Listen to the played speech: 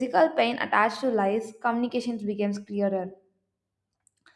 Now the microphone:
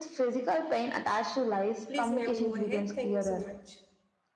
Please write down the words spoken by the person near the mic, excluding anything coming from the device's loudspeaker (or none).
please ma'am go ahead thank you so much